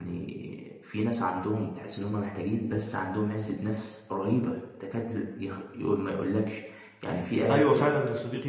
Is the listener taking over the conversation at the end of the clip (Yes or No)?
Yes